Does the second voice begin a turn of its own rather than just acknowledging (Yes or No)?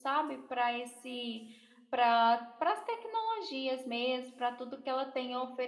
No